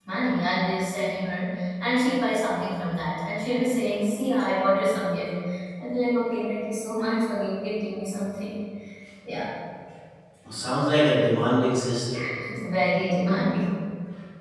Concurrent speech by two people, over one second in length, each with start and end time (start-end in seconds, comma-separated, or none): none